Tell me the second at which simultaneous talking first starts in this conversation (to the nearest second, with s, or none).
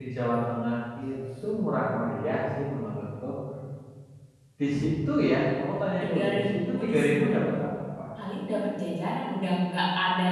6 s